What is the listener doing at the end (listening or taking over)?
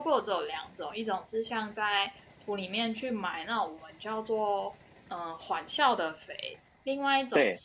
listening